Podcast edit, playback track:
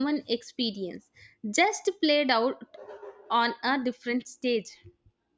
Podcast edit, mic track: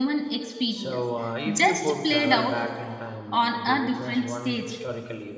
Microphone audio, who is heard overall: both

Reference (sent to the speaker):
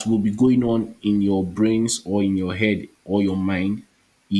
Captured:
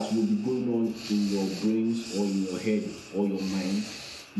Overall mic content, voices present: echo only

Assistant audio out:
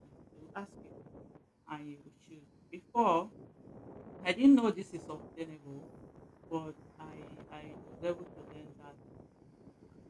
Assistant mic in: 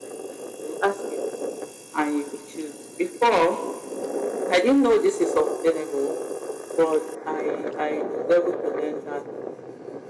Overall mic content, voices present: echo only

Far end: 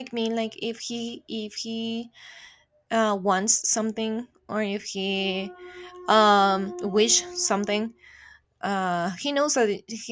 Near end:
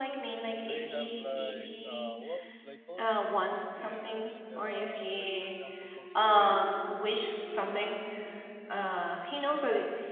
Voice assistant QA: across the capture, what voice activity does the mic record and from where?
both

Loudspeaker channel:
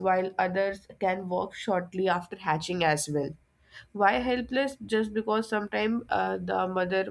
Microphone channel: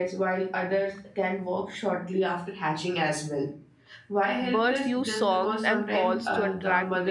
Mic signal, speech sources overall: both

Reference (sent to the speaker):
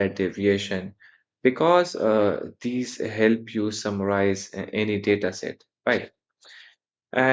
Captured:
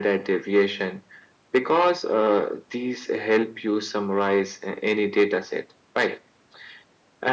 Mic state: echo only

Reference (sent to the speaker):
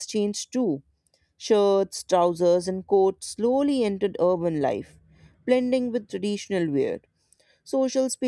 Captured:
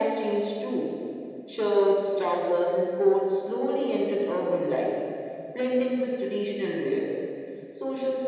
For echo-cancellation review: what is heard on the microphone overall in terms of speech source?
echo only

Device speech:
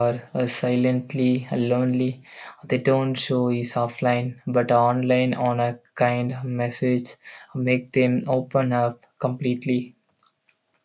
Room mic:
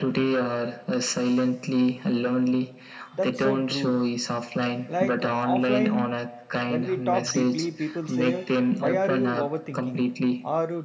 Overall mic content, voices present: both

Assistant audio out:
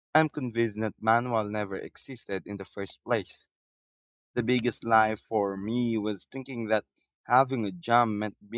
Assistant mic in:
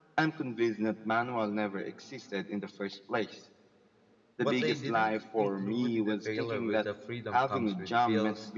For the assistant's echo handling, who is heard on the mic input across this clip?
both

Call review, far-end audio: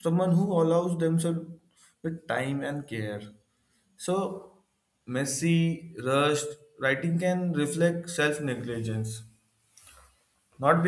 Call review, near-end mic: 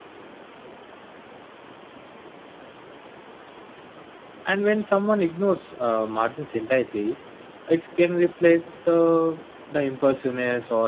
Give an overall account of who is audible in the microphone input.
user only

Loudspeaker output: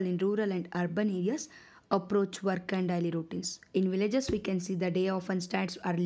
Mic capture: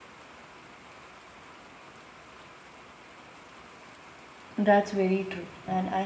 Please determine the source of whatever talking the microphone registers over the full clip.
user only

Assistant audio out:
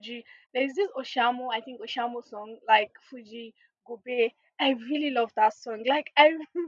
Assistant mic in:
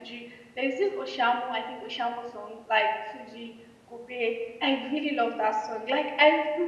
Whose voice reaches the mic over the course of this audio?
echo only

